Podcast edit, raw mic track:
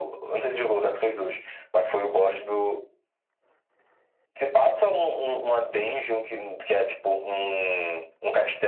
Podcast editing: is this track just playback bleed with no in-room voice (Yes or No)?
Yes